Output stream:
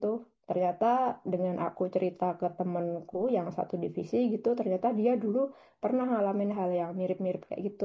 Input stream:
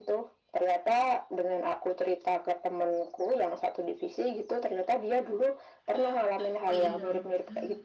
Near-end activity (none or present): present